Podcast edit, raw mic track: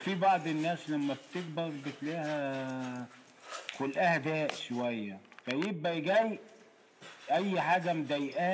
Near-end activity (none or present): none